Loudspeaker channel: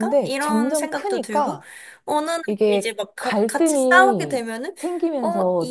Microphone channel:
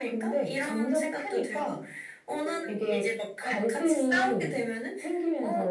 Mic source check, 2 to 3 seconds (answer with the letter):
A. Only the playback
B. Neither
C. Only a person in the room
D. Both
D